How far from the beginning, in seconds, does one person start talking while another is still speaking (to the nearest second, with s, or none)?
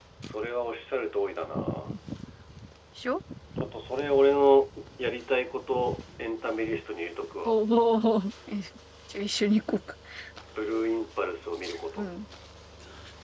none